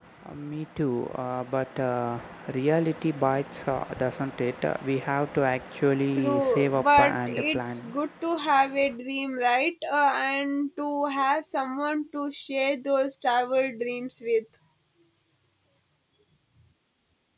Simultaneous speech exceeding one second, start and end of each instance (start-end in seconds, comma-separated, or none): 6.2-7.8